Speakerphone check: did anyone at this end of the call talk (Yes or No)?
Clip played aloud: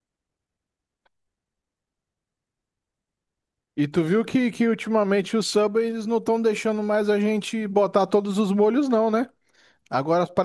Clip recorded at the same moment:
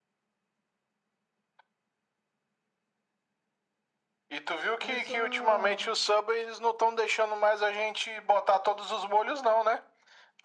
Yes